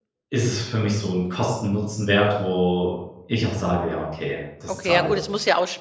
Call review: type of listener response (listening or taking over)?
taking over